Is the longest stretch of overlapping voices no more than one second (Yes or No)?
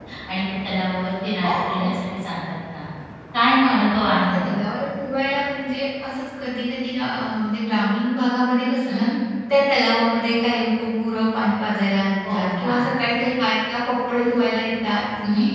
Yes